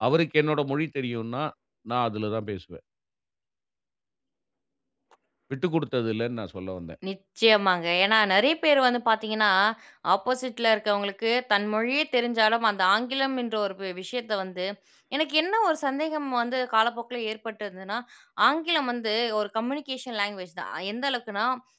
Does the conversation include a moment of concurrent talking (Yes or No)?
No